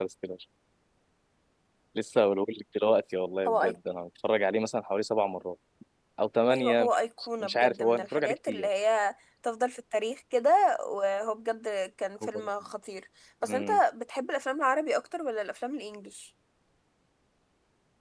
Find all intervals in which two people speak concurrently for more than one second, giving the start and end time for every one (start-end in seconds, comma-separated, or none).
7.4-8.7